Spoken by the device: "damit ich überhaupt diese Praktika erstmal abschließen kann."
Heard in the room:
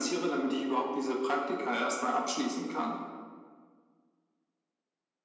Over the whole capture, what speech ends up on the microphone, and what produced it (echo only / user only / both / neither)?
echo only